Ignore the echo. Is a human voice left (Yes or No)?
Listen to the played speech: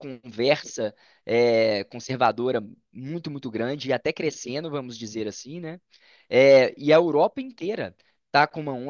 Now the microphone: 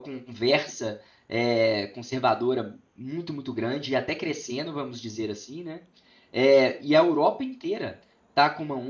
No